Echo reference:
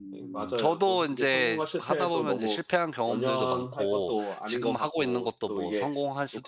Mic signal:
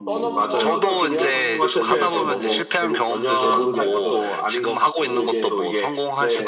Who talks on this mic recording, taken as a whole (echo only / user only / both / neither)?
both